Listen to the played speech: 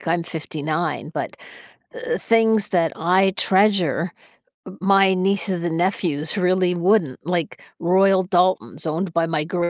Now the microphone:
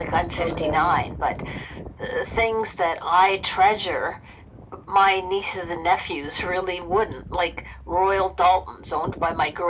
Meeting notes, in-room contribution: present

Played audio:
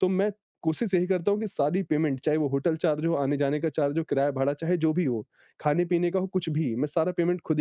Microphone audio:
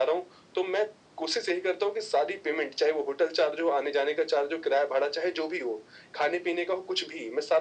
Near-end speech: none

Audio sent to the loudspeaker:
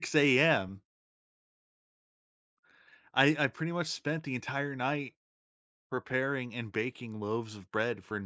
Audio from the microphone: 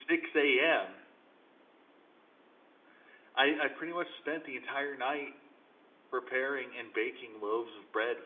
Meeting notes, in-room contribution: none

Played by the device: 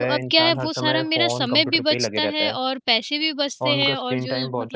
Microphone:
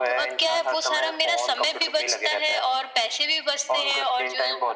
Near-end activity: none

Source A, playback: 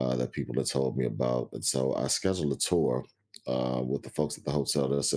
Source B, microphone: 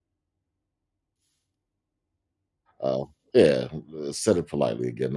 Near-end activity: present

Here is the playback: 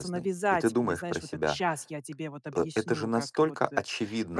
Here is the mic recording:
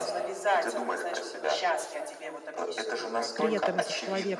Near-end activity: present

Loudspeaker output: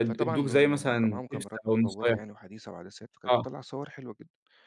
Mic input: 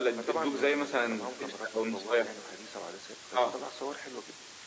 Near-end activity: none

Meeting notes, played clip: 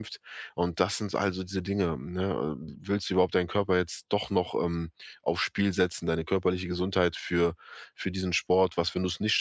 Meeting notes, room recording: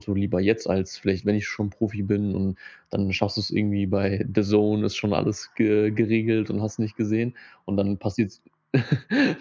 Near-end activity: present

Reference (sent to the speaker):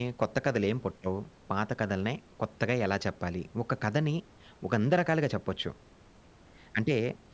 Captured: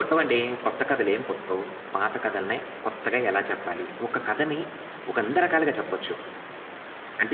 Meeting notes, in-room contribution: none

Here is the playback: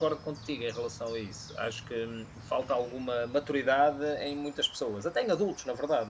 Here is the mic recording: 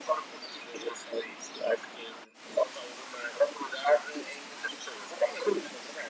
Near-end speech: none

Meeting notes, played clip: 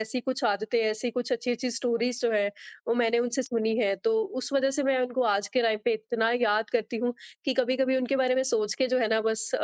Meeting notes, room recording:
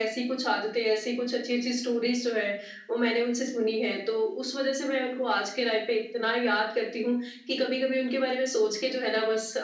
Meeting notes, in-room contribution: none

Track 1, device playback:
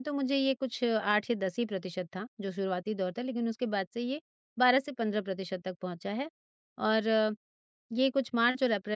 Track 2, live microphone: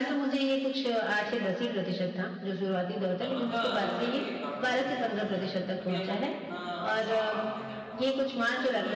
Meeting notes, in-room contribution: present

